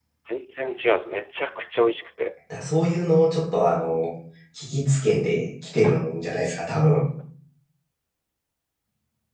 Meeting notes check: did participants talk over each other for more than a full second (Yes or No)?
No